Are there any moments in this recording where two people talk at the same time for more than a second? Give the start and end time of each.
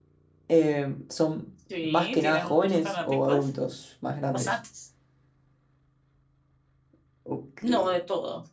1.8-3.5

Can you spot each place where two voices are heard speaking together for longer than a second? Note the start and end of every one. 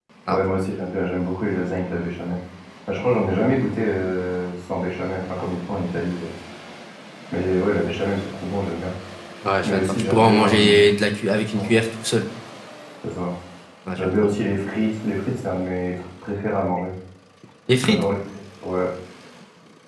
9.6-10.9

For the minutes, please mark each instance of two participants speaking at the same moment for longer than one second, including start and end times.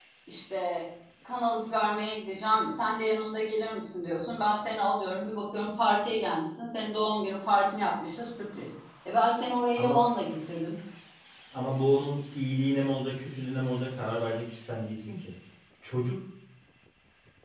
none

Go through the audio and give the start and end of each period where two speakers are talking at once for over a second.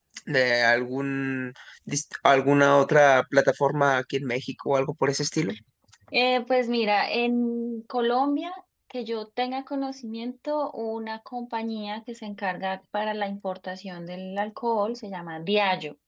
none

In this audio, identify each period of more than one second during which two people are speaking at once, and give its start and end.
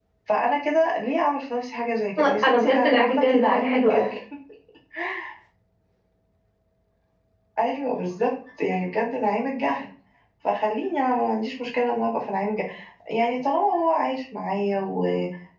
2.2-4.1

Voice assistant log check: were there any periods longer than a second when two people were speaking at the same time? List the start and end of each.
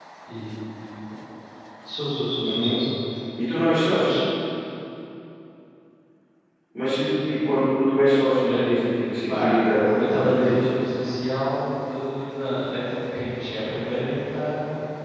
9.3-10.5

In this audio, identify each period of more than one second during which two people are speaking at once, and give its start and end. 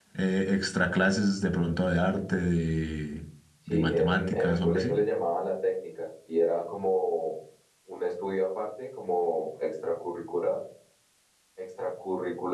3.7-5.0

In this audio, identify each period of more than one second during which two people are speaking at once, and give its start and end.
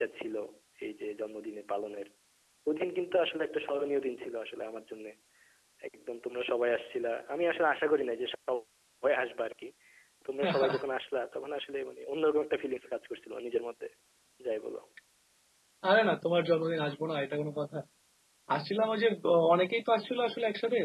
none

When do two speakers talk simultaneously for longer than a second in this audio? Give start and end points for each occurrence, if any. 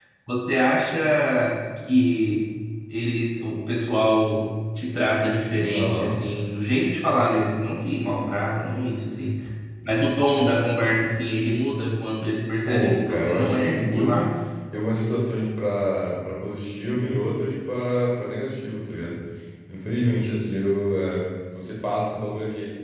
12.7-14.2

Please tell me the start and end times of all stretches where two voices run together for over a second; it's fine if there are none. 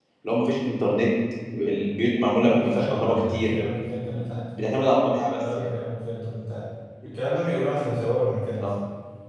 2.4-3.6

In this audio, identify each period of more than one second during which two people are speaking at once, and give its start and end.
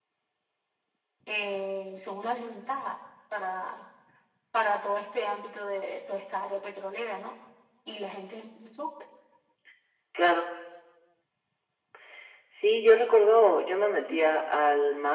none

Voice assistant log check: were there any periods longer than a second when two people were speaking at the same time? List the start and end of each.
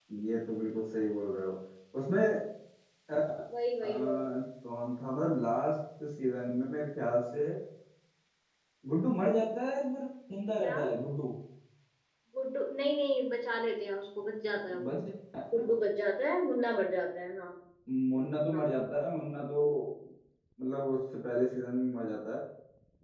none

